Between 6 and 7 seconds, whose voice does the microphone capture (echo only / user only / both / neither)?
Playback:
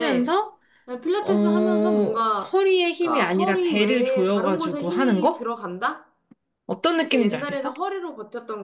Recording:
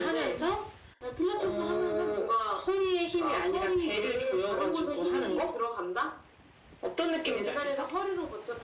echo only